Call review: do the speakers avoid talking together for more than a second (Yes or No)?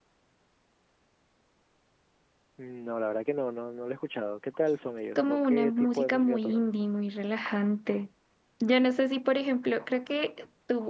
No